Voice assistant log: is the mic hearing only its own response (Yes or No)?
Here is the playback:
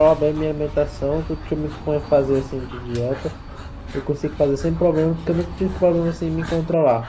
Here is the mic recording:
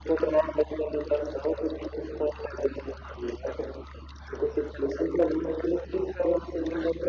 Yes